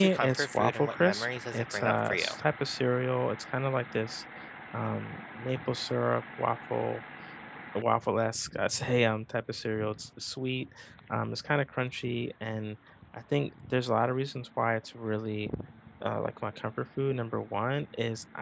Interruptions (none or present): present